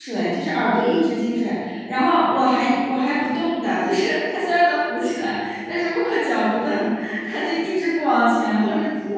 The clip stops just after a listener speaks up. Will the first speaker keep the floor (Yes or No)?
No